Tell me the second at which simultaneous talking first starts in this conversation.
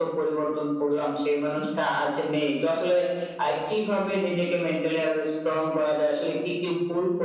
none

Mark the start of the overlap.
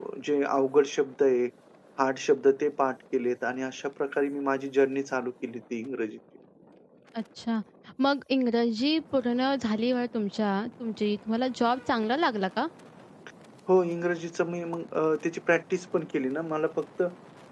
none

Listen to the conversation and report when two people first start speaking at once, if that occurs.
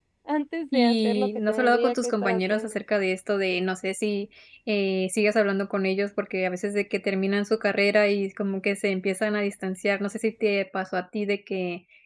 0.7 s

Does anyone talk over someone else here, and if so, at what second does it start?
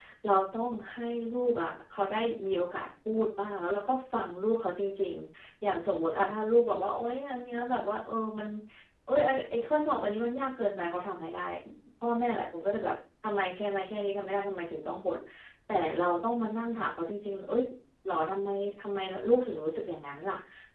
none

